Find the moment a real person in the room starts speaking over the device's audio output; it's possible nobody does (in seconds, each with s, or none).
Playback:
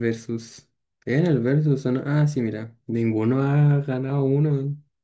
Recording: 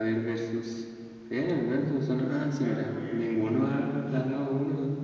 2.1 s